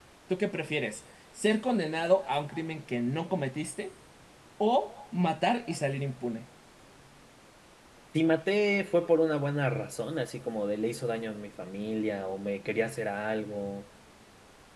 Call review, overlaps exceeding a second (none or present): none